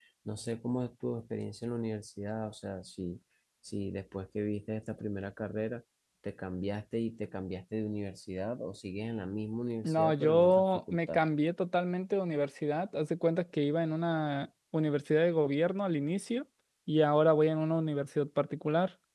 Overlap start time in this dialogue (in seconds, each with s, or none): 9.8 s